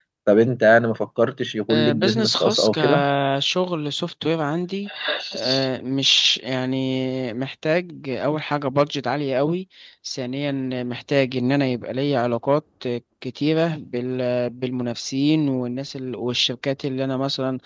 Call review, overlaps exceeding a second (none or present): present